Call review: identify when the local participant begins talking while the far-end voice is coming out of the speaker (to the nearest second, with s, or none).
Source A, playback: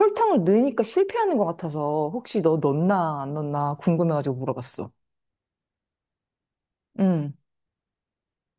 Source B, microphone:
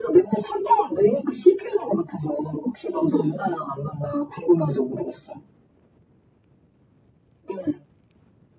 3 s